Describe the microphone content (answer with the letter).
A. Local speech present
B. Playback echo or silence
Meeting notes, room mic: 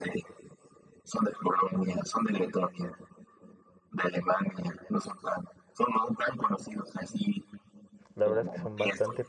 A